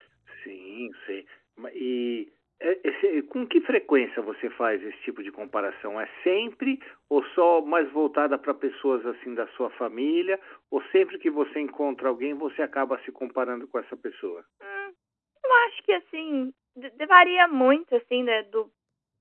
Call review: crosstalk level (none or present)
none